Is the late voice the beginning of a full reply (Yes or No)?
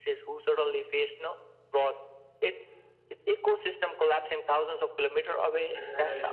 No